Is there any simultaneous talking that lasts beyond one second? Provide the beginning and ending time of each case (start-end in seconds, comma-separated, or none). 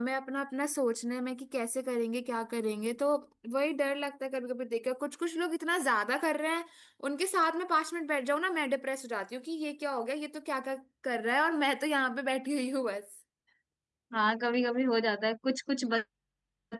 none